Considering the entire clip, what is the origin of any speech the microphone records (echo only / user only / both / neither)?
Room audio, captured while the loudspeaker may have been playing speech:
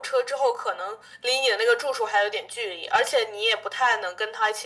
echo only